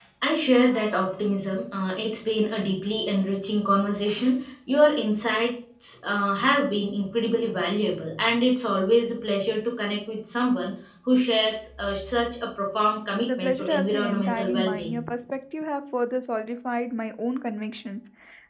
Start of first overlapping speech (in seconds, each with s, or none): 13.3 s